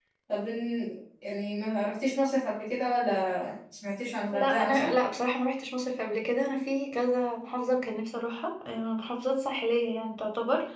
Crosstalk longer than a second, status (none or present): none